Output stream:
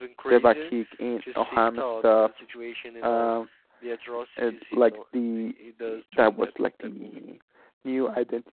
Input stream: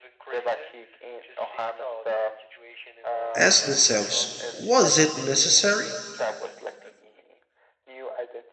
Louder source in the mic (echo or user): user